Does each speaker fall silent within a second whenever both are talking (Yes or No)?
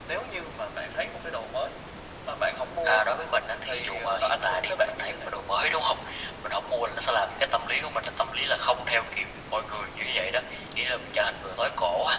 No